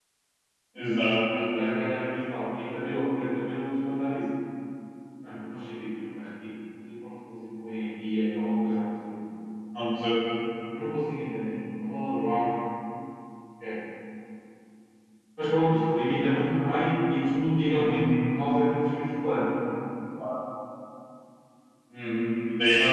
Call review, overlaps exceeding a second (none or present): none